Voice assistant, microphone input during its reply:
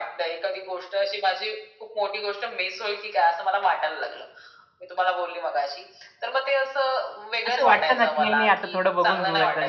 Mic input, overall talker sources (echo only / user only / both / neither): both